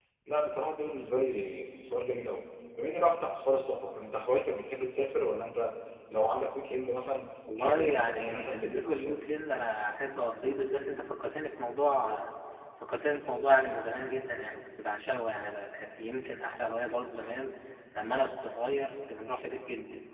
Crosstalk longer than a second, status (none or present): present